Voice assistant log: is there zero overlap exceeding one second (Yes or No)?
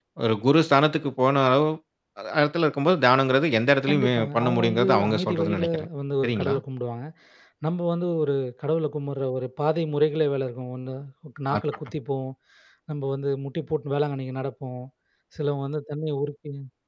No